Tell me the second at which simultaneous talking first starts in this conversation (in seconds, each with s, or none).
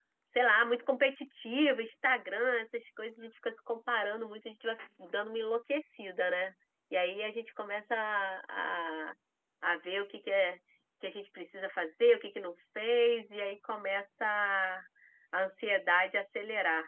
none